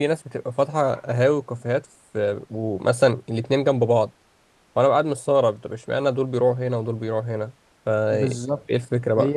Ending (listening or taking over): taking over